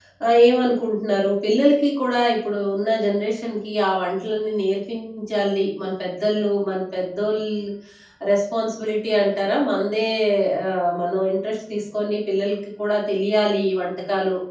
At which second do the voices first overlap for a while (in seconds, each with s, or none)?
none